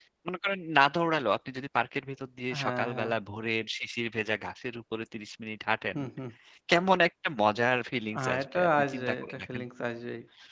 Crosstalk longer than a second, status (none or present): present